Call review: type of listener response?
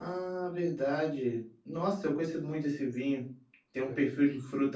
listening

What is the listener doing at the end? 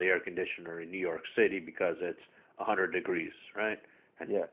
listening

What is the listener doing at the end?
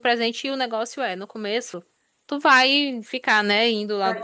listening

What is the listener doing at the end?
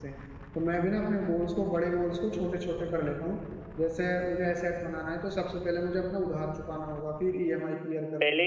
taking over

